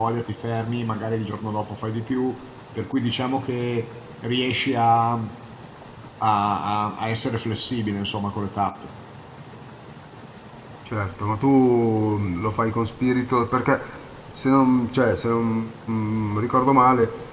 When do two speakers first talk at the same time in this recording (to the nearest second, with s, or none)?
none